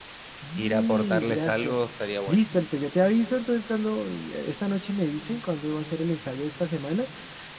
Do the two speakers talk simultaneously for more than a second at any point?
Yes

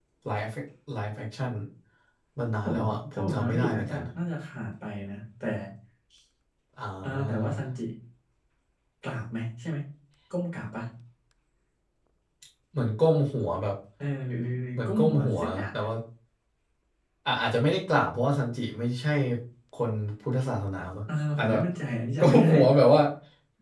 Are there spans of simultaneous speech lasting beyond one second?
Yes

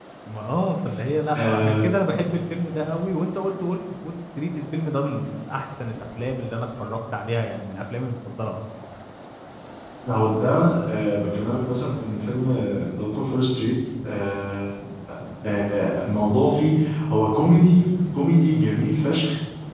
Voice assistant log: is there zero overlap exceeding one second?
Yes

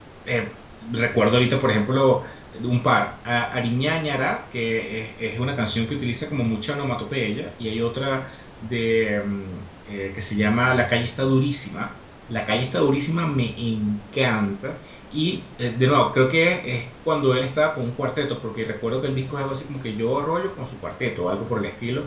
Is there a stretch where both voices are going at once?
No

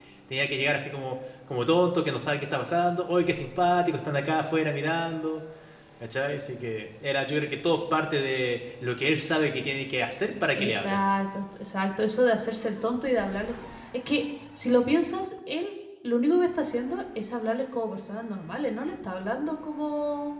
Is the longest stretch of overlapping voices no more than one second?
Yes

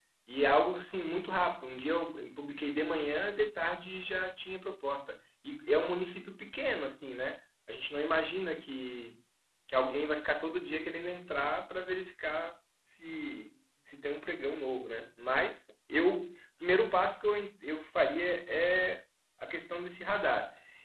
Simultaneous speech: No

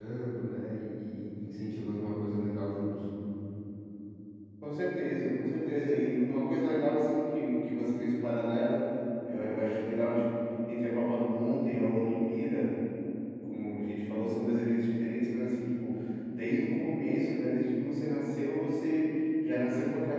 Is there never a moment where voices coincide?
Yes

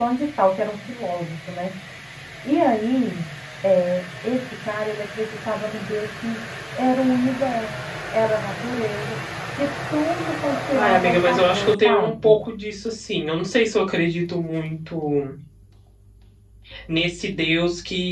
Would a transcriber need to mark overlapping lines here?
Yes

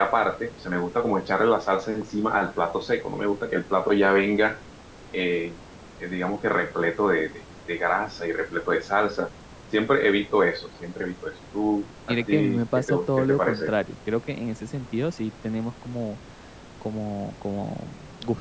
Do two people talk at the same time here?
Yes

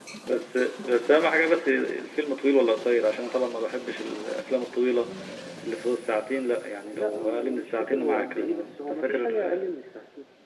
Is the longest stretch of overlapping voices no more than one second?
No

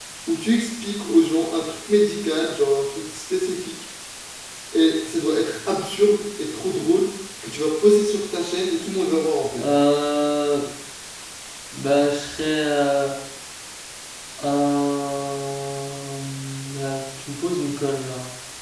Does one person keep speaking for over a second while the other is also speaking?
No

